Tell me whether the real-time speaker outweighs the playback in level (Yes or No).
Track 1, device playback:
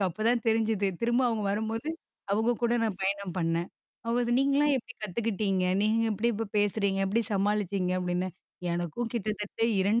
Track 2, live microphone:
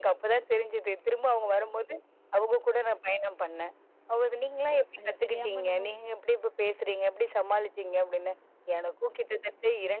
No